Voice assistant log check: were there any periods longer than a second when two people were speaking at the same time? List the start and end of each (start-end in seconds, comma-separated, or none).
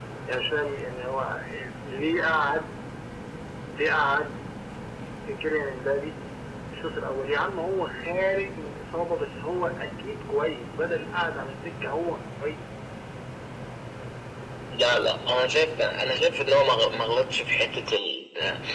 none